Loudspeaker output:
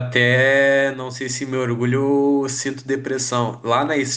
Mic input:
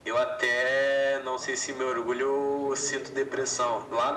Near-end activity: present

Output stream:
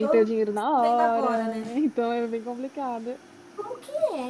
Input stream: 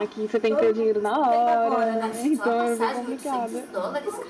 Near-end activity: present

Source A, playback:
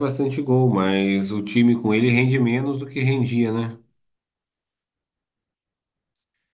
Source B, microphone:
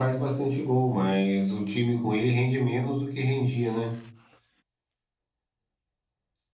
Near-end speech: none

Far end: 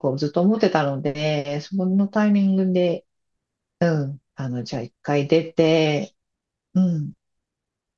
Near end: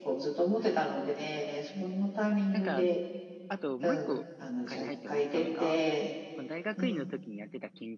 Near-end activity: present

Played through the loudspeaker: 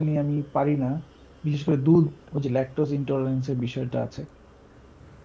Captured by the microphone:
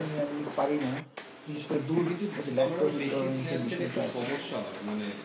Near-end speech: present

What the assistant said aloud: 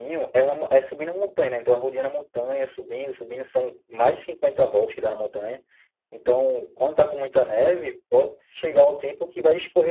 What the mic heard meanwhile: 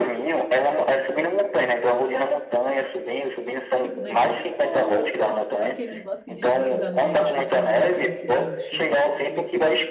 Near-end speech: present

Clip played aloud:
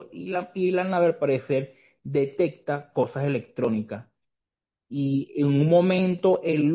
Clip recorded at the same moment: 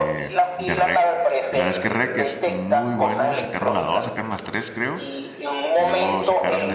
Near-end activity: present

